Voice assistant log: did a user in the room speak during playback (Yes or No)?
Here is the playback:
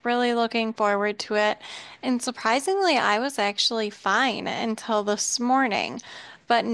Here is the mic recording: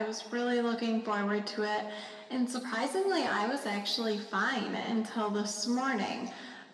No